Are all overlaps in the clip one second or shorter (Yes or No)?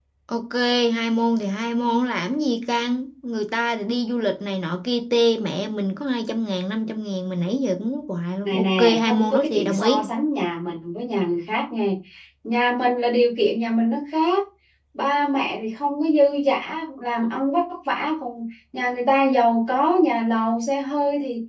No